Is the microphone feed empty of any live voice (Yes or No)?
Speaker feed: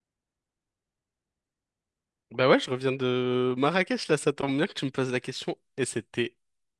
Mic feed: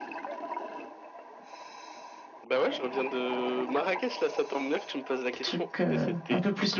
No